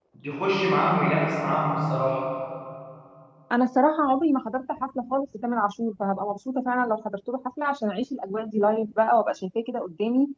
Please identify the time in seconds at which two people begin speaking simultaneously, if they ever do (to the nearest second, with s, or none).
none